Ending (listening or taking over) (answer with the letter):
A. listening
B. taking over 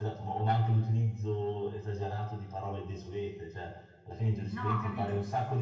A